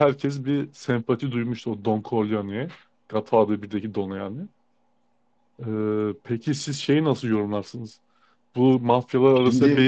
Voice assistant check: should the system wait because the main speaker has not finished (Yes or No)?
Yes